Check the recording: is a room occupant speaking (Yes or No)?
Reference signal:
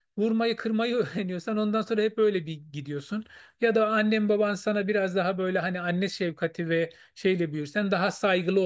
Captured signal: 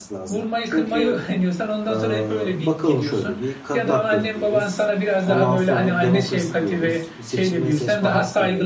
Yes